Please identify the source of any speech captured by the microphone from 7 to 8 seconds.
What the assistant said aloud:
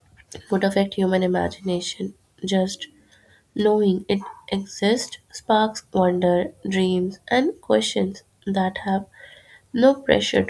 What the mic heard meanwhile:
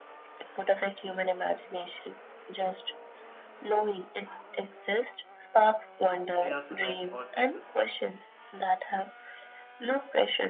both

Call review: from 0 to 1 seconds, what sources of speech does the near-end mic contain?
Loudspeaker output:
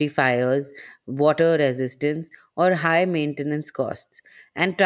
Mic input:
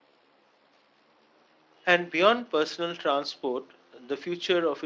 neither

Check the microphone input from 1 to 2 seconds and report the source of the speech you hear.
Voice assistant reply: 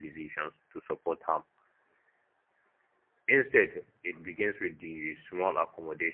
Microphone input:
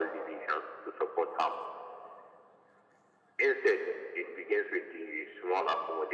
echo only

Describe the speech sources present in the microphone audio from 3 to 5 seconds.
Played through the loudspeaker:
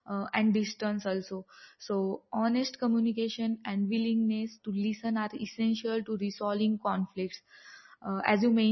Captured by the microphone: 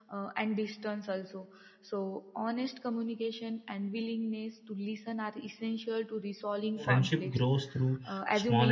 echo only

